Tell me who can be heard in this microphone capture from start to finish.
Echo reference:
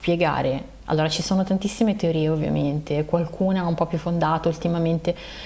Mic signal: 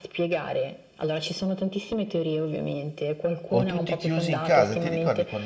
both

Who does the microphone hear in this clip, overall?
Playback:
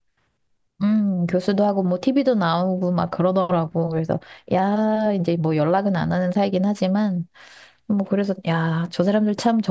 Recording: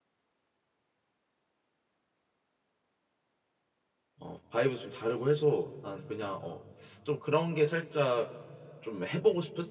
user only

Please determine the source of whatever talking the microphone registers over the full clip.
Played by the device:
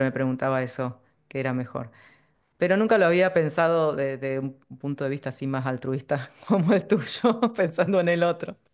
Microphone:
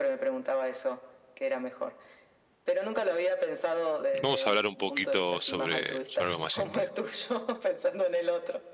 both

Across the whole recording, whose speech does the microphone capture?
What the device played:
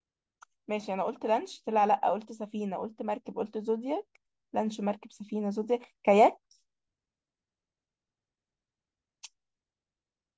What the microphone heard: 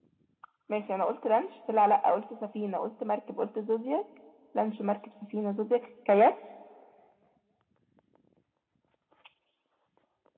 echo only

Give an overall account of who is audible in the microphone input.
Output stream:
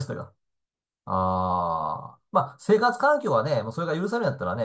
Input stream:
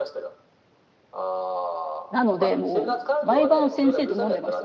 both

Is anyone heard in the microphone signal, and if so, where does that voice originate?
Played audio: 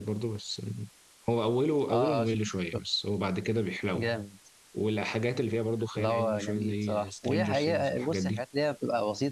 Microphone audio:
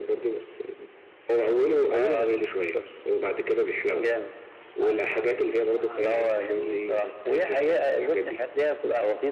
both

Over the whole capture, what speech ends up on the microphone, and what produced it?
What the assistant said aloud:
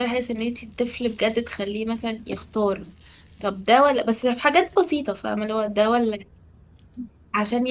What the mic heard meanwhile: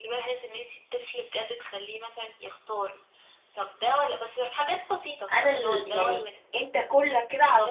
both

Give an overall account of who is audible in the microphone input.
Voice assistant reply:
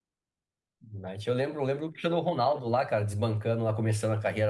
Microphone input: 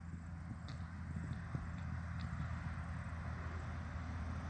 neither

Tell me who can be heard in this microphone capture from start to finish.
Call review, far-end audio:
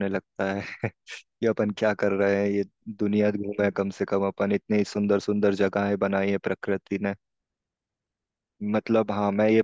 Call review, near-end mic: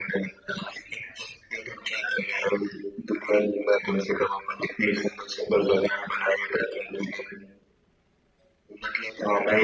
echo only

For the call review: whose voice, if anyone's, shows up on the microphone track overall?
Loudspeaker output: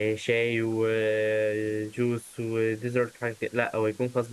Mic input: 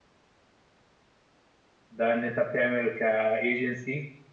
user only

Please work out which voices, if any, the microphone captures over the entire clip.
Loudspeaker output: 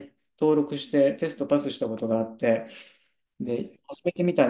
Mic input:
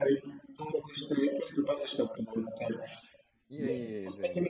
both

